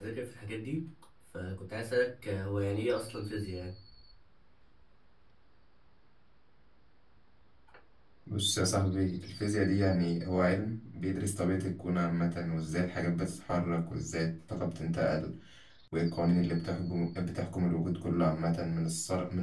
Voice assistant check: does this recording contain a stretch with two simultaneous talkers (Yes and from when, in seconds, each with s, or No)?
No